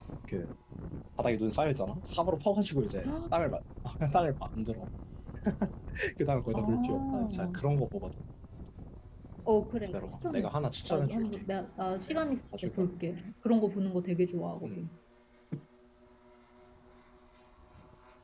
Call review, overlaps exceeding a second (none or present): present